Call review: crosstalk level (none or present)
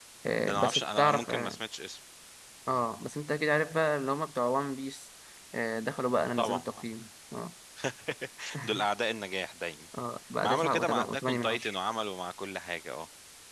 present